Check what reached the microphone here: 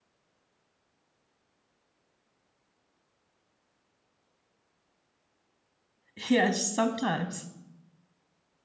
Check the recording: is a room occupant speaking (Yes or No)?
Yes